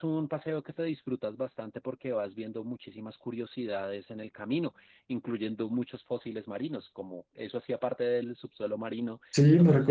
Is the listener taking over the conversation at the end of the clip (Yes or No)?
Yes